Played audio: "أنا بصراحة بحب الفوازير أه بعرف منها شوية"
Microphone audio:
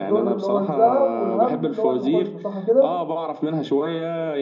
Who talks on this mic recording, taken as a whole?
both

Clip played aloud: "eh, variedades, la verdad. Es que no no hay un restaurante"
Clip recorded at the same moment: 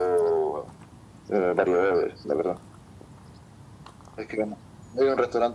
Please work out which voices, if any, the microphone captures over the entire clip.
echo only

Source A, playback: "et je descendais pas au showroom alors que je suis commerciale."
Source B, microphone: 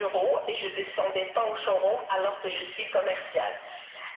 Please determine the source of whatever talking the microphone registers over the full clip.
echo only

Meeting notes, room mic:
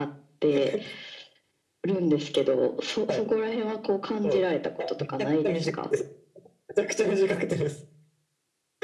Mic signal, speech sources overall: echo only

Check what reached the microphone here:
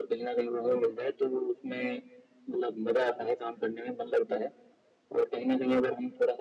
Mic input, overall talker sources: echo only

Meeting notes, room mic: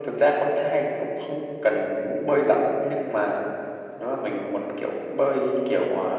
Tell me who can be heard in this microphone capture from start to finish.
echo only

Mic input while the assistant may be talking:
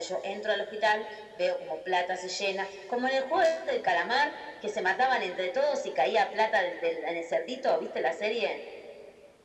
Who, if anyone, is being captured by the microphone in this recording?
echo only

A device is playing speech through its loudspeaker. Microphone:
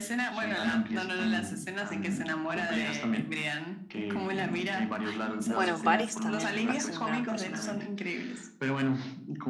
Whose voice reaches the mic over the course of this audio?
both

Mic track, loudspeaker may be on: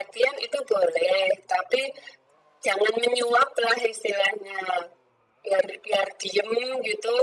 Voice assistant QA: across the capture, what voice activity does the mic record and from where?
echo only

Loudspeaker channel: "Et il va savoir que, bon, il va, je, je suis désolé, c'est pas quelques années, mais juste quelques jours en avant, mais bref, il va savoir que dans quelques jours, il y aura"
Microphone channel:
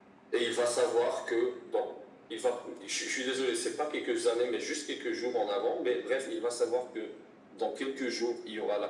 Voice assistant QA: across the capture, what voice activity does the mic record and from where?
echo only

